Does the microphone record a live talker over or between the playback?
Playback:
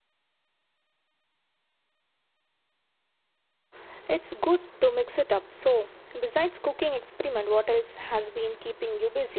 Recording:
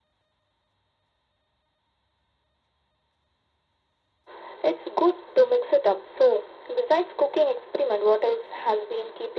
No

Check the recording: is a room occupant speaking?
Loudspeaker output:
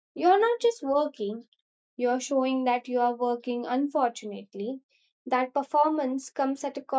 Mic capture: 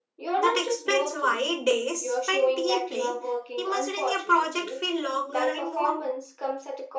Yes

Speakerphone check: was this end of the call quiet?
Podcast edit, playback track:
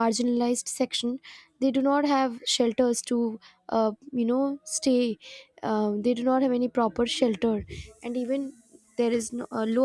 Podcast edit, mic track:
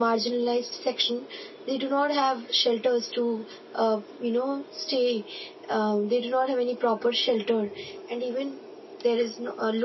Yes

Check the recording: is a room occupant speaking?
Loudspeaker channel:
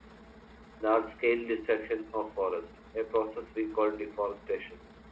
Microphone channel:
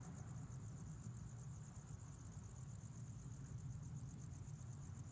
No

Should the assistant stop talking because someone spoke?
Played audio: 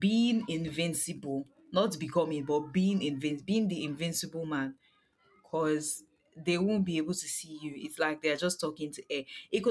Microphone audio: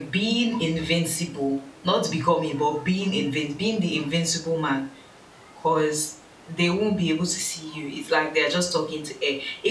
No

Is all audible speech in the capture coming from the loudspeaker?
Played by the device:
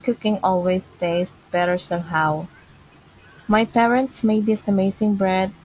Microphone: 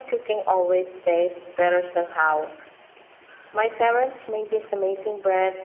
Yes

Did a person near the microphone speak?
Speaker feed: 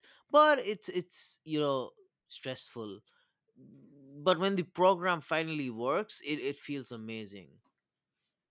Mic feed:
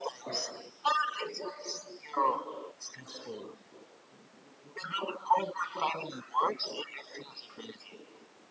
No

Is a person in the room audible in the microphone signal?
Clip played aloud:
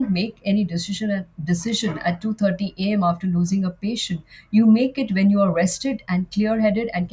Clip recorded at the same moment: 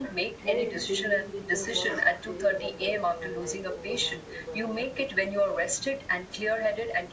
Yes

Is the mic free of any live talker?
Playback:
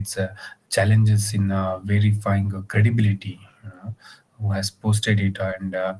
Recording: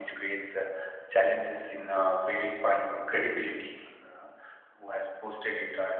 Yes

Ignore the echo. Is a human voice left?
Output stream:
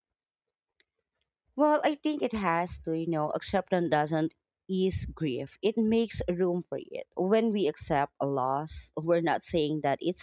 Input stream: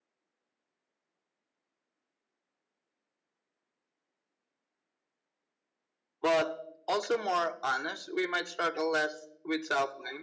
Yes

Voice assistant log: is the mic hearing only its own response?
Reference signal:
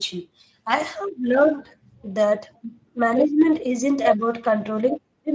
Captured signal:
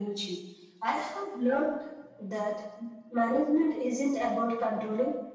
Yes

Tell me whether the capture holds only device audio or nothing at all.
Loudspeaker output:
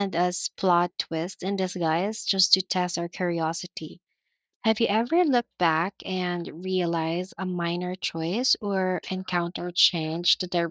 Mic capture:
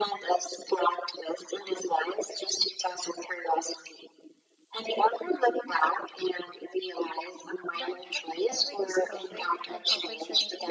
No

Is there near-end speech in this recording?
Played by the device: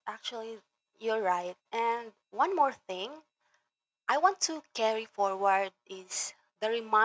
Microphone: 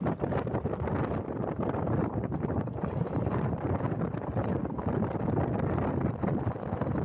No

